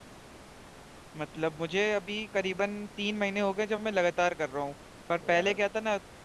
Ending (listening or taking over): listening